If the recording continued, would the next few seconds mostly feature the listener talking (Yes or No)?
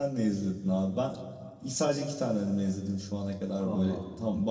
No